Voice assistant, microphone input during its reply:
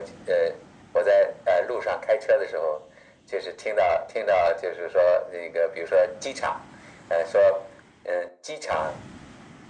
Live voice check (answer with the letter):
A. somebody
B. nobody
B